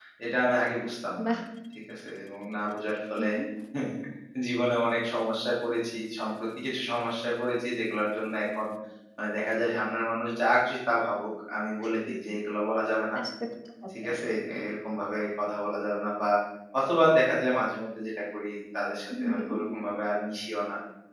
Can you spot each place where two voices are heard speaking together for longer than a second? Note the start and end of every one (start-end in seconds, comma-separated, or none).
none